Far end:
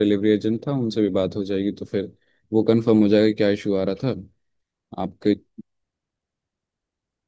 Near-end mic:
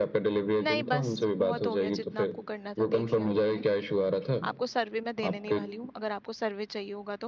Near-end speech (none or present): present